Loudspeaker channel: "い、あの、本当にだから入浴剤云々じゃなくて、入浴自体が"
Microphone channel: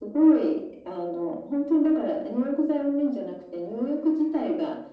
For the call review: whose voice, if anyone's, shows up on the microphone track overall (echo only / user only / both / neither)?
echo only